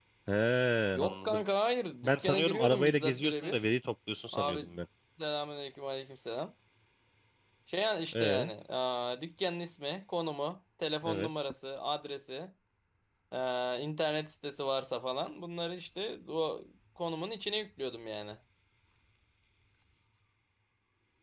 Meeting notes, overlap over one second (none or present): present